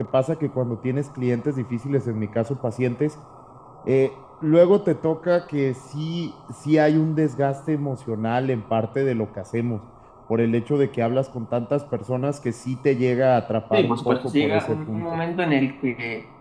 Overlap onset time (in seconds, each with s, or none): 13.7 s